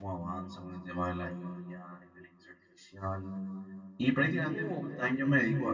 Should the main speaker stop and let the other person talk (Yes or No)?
No